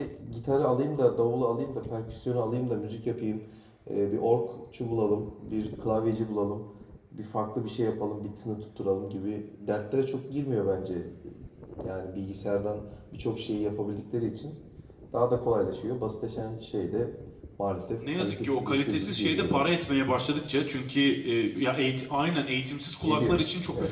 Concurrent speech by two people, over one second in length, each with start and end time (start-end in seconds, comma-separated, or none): 18.2-19.7